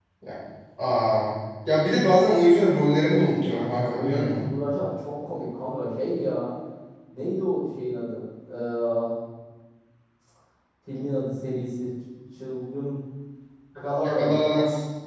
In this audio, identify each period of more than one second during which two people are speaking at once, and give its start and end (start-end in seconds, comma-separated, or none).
3.0-4.5